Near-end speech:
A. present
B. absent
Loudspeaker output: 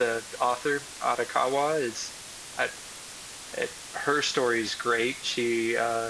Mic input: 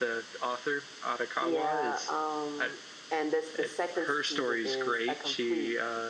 A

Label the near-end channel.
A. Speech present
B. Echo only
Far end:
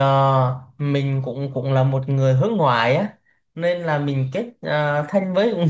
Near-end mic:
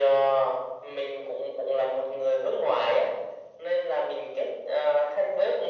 B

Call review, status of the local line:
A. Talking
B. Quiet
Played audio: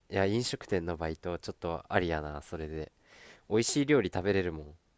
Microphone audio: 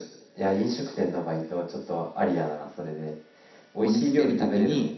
A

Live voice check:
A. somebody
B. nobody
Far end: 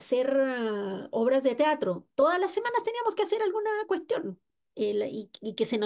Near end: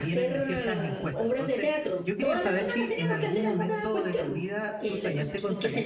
A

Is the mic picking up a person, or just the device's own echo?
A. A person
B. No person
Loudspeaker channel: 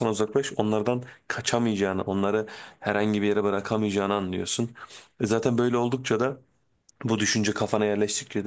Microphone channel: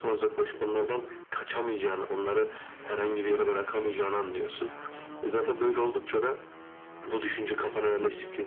B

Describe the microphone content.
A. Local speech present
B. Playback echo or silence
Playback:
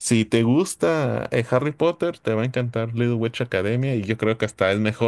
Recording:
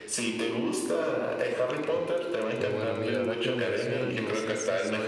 A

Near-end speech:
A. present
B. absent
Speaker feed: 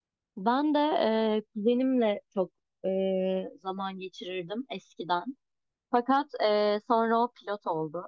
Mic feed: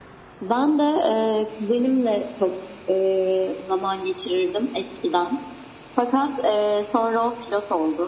B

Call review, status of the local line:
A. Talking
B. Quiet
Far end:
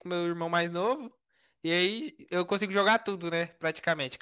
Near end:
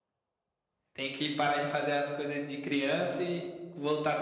A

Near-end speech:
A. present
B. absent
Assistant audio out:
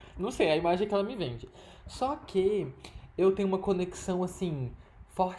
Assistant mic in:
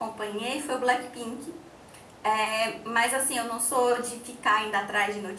A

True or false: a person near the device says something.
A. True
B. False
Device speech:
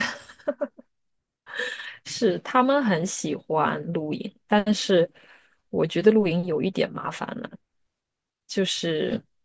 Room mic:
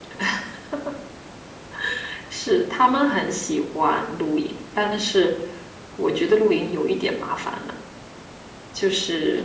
B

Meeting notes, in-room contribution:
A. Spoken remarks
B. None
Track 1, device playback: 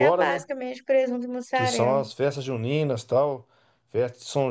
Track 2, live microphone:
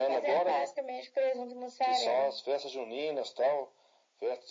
B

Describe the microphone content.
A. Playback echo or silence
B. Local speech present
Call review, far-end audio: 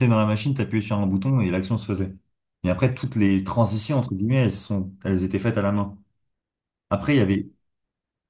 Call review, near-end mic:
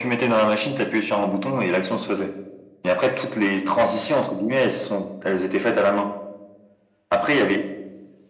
A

